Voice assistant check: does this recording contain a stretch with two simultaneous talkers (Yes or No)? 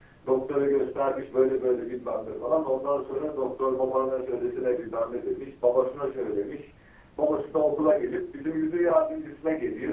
No